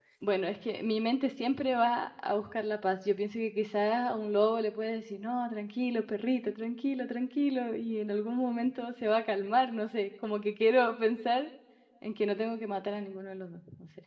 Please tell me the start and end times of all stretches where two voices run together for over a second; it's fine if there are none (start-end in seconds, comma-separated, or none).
none